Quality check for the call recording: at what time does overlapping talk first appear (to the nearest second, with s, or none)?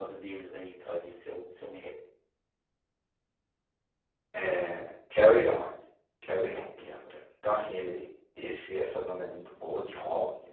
none